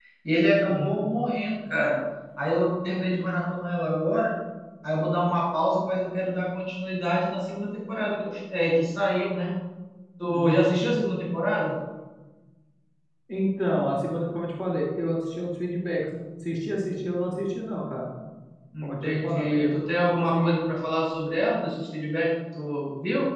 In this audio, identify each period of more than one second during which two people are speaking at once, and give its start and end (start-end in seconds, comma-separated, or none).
18.8-20.6